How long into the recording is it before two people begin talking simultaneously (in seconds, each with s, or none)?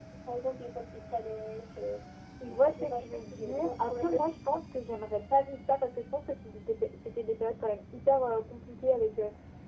2.4 s